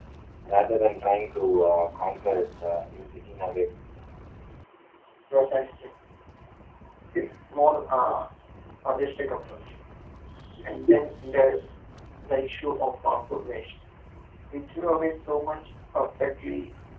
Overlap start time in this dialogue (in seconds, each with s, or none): none